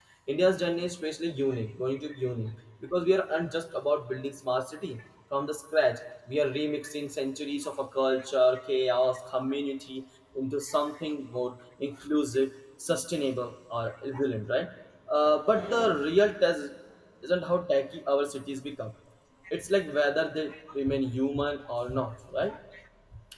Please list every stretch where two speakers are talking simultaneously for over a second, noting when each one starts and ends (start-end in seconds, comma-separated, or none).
none